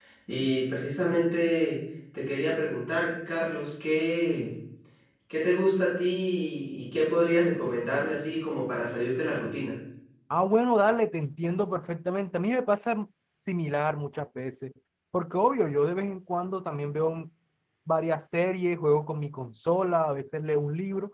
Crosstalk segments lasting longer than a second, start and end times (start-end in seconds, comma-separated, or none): none